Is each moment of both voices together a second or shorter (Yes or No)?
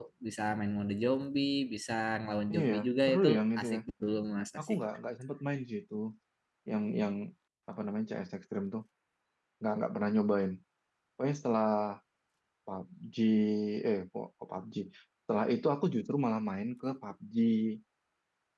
No